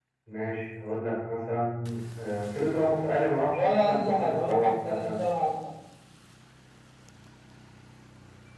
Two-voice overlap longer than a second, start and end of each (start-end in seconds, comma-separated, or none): 3.5-5.1